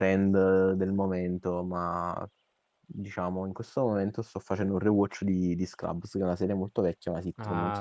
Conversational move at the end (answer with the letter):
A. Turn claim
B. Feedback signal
A